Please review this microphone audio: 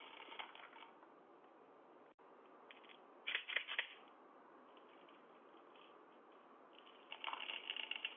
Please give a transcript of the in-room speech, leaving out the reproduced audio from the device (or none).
none